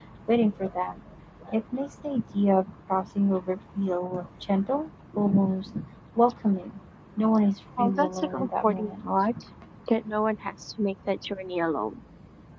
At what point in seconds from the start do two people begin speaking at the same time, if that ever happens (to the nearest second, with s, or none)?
8 s